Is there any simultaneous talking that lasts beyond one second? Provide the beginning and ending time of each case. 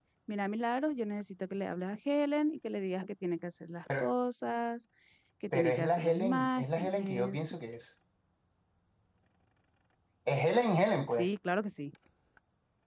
5.5-7.4

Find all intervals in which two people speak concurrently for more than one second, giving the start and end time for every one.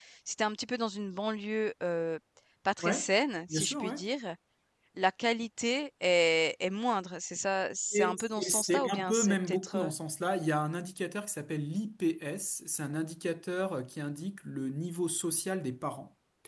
7.9-9.9

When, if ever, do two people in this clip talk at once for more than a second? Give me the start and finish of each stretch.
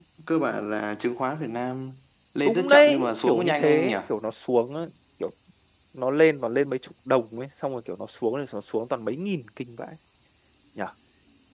2.4-4.0

